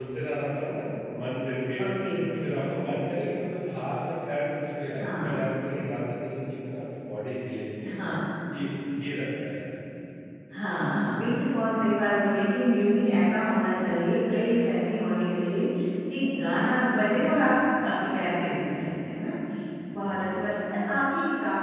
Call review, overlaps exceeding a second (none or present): none